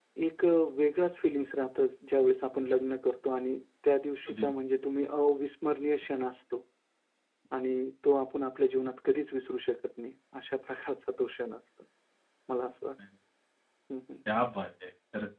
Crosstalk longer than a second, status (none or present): none